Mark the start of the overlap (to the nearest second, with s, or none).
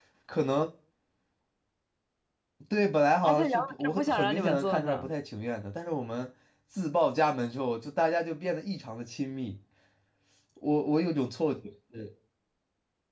3 s